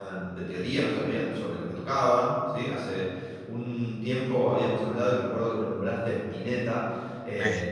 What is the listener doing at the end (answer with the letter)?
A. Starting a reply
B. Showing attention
B